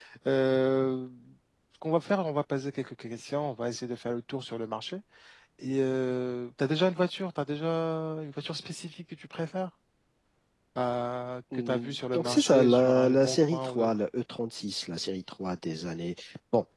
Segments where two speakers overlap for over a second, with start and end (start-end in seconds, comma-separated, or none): 11.5-13.9